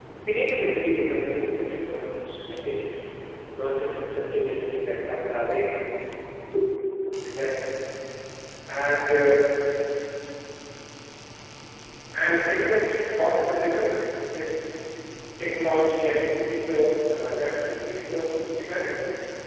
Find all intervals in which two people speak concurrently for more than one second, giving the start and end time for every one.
none

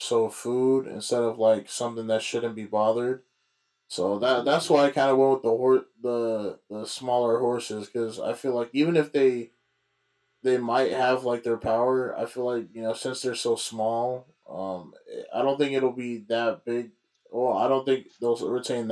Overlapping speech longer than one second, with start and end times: none

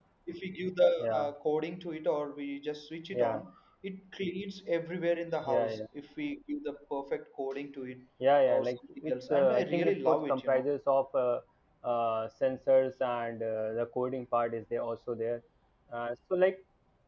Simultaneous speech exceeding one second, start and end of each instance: 8.5-10.7

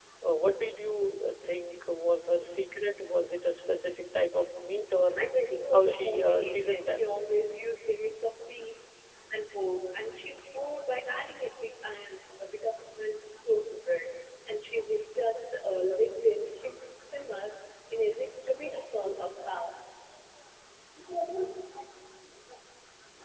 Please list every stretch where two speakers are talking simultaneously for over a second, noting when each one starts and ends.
5.7-7.1

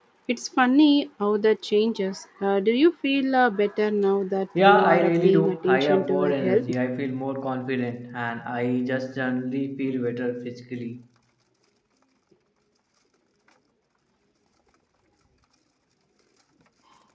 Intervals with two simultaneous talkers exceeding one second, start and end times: 4.6-6.7

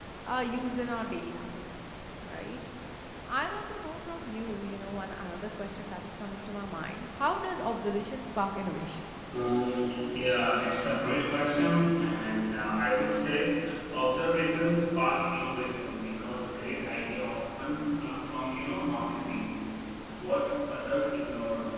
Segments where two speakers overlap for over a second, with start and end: none

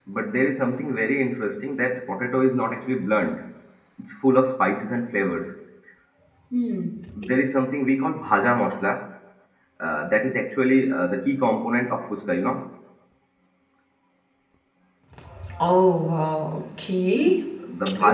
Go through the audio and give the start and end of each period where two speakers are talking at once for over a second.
none

